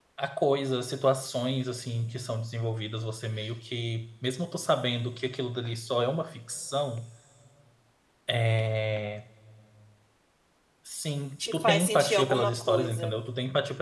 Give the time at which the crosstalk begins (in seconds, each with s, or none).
11.5 s